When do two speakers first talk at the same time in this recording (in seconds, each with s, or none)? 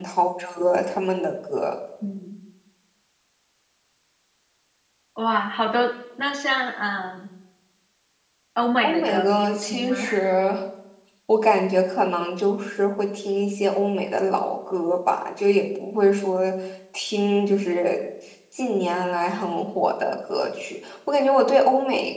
8.8 s